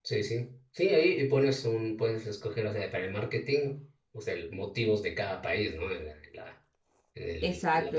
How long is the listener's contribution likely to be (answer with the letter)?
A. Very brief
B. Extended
B